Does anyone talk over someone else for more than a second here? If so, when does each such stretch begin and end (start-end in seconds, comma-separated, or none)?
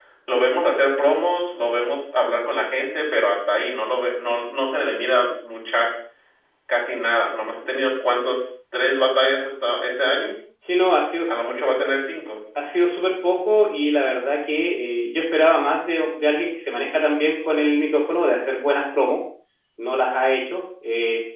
none